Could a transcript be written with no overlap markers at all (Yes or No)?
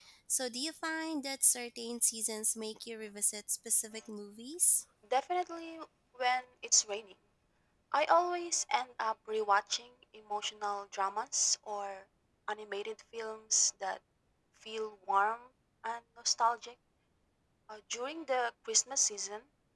Yes